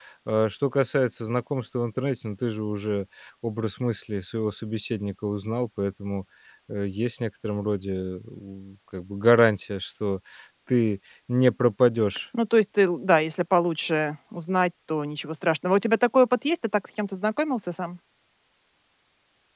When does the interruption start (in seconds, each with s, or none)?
none